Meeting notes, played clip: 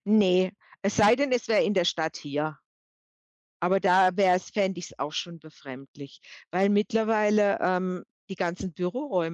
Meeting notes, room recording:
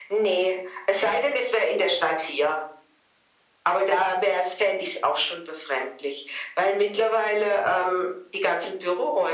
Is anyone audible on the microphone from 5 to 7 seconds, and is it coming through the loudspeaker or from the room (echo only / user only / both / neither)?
echo only